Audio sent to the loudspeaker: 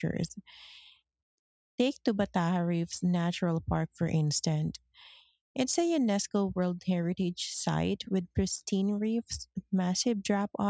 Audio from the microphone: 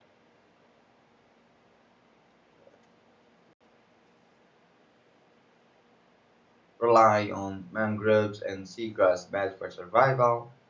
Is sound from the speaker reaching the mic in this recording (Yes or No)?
No